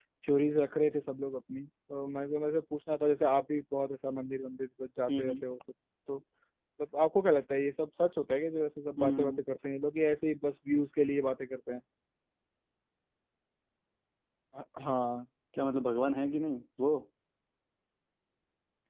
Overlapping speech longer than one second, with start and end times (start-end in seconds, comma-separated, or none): none